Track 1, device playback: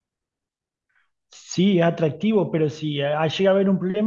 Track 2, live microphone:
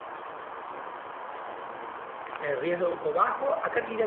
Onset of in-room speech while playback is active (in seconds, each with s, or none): 2.4 s